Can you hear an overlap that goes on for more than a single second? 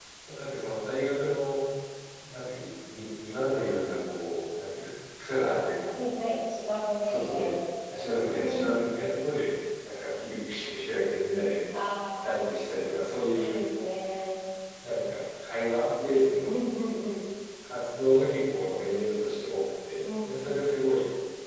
No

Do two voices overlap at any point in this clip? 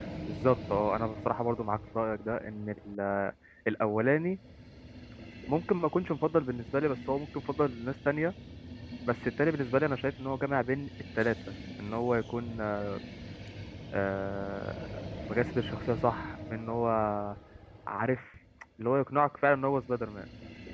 No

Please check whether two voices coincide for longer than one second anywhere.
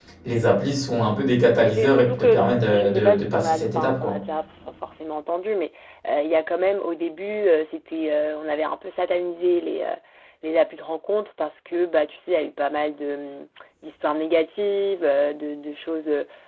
Yes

